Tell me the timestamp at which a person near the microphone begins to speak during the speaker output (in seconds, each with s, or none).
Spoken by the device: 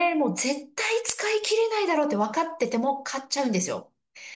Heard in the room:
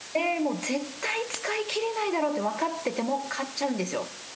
none